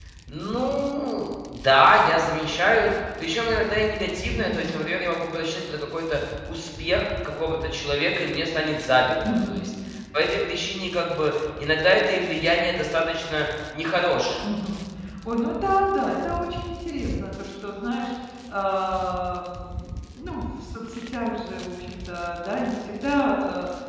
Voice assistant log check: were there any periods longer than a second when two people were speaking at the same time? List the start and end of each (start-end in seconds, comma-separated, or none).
none